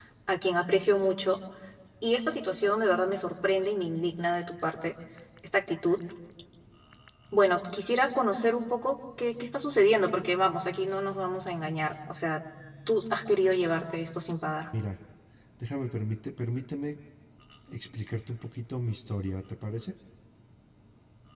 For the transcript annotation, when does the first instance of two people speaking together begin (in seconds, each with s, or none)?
none